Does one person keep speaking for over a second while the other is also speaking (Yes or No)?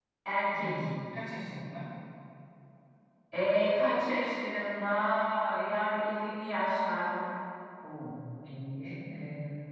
No